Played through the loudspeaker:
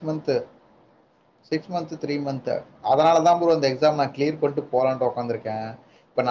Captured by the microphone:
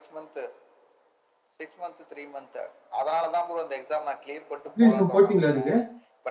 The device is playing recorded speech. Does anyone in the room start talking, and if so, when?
4.7 s

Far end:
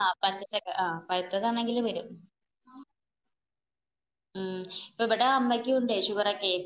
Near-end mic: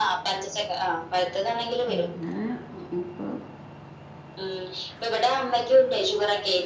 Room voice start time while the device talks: 1.9 s

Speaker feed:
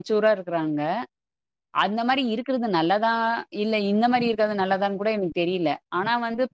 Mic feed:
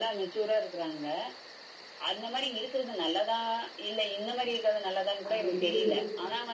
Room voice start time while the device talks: 5.3 s

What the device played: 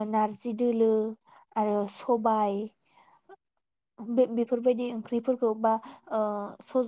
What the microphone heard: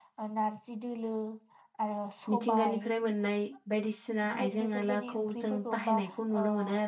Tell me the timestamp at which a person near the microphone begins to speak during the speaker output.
2.3 s

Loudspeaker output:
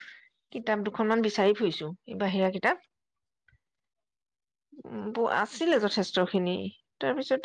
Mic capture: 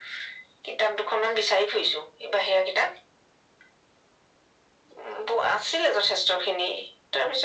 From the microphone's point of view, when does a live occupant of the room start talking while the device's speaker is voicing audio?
none

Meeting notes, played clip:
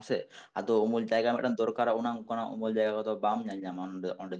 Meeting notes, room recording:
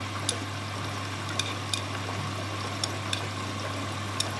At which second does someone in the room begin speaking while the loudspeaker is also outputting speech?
none

